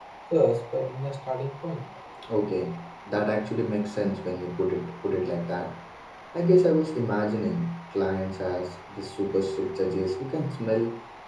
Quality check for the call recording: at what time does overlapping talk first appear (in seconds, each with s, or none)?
none